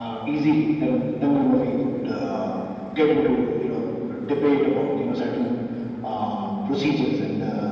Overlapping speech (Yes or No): No